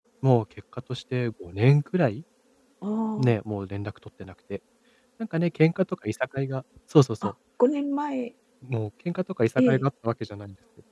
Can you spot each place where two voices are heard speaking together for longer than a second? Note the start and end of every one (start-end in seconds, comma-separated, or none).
none